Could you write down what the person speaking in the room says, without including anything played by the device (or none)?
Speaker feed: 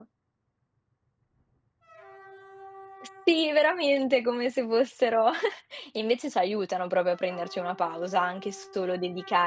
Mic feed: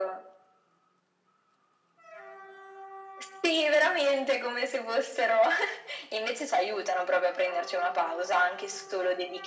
none